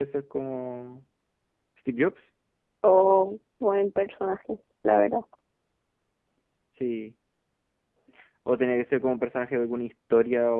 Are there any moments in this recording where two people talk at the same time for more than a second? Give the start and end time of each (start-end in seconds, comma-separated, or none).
none